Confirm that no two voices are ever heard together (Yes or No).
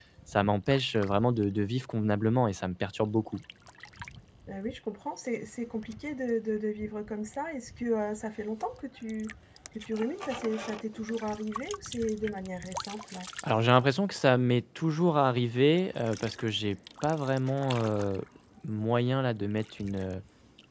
Yes